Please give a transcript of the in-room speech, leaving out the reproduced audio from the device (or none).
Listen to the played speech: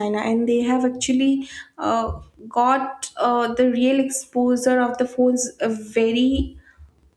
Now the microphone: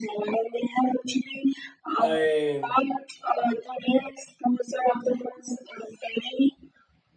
i